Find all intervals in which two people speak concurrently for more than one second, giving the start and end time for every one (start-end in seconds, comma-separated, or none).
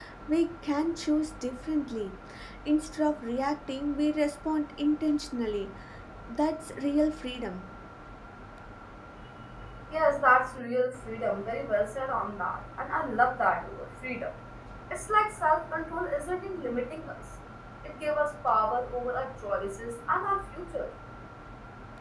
none